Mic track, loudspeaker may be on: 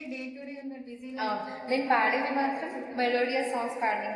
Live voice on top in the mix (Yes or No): Yes